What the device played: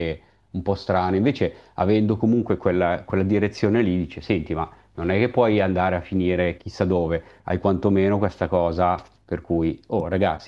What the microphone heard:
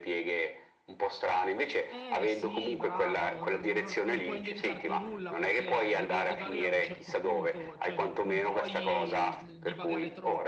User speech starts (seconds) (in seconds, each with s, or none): 1.9 s